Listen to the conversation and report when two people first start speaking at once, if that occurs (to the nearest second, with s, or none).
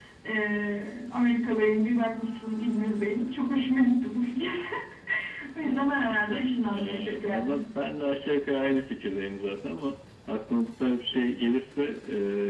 6 s